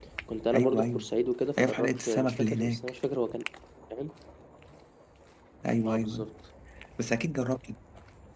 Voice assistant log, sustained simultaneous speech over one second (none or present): present